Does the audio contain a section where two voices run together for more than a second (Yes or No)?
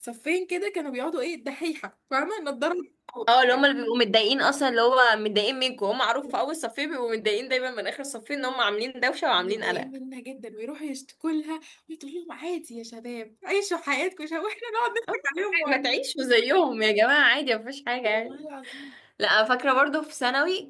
No